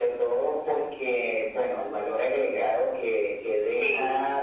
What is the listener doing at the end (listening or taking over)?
listening